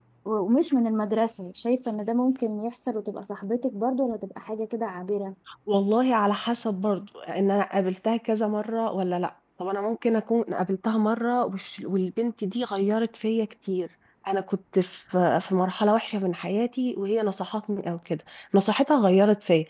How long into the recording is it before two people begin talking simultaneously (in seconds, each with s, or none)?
none